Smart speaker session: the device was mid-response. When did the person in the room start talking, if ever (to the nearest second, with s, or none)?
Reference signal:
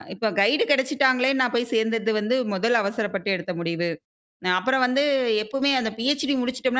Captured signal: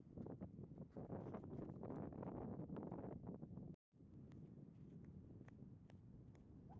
none